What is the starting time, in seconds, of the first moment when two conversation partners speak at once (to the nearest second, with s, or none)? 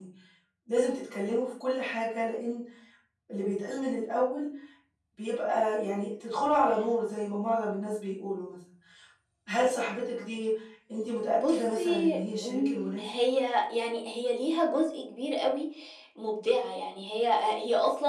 11 s